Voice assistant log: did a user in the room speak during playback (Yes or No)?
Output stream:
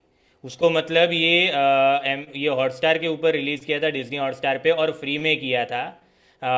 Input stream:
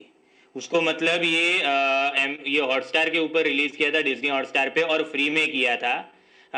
No